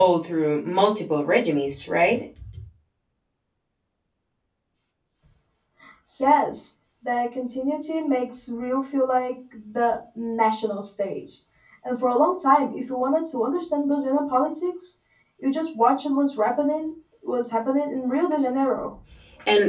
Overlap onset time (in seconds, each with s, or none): none